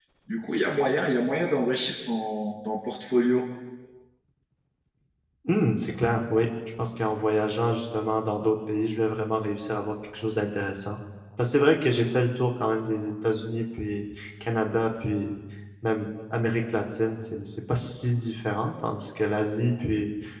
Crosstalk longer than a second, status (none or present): none